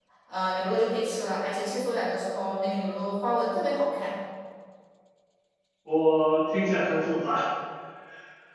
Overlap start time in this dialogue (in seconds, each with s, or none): none